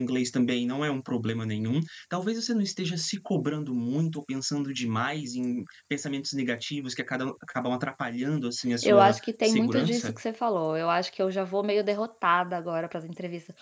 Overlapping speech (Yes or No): Yes